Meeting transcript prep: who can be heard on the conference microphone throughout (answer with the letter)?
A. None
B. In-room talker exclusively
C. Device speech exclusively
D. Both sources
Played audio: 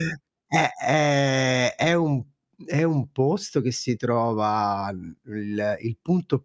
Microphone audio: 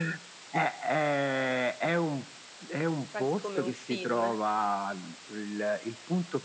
D